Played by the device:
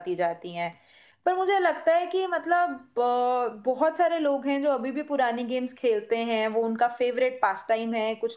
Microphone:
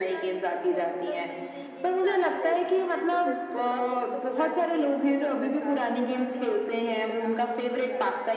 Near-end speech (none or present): present